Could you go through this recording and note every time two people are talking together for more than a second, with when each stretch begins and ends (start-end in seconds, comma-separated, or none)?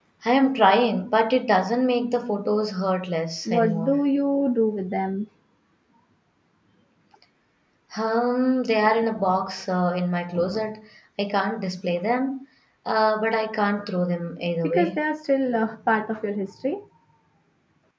none